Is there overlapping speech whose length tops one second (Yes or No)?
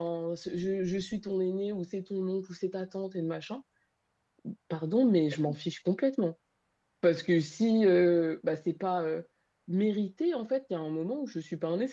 No